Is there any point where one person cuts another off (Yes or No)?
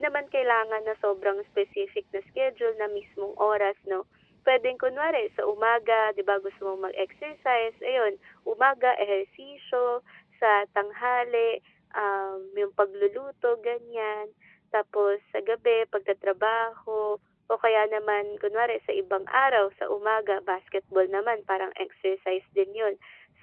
No